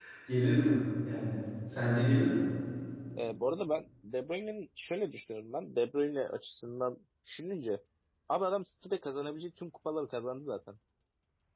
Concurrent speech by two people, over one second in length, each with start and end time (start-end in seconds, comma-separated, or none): none